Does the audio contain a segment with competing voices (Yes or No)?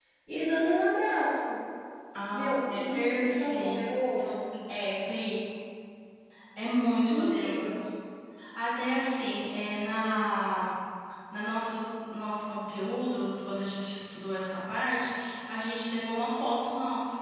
Yes